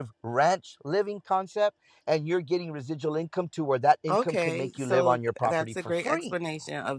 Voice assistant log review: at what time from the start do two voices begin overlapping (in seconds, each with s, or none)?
4.1 s